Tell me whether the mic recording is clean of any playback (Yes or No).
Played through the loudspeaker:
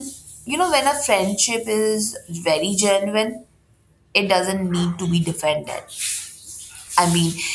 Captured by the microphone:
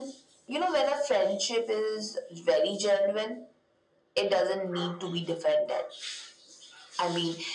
No